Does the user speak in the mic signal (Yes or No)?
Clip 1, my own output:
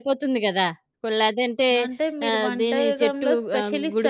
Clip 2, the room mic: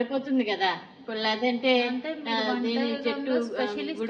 No